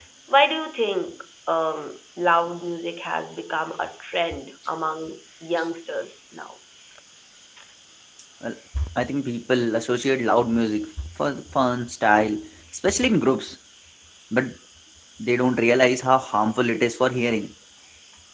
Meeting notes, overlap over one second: none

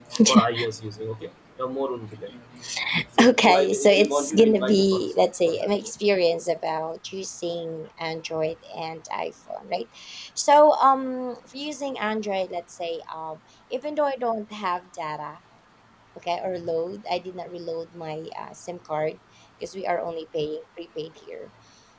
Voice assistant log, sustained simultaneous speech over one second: present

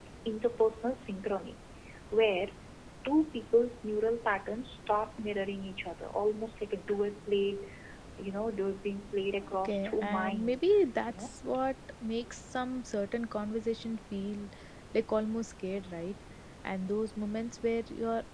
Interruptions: present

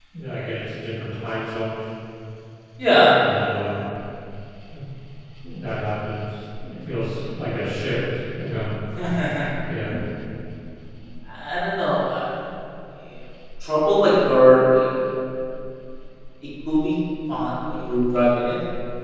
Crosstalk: none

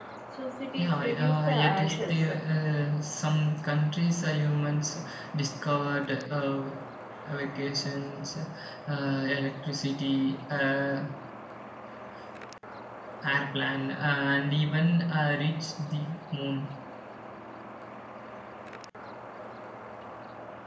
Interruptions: present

